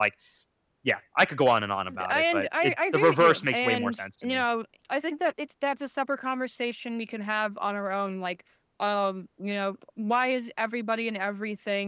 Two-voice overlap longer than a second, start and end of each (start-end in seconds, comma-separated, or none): 2.1-4.4